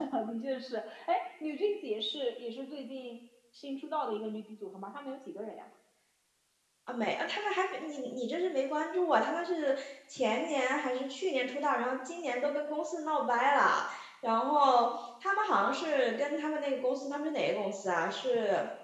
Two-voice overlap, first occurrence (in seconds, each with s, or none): none